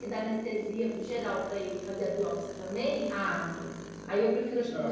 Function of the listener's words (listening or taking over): taking over